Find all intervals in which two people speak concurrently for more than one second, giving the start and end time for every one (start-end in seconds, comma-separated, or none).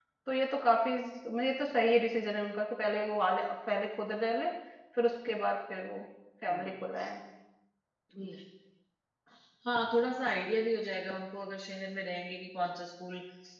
none